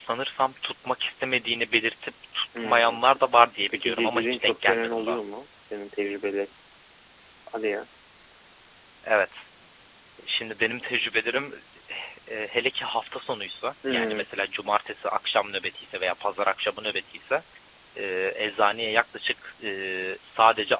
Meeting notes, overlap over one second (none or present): present